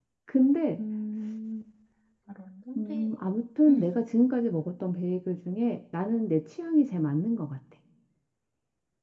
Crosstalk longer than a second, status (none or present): none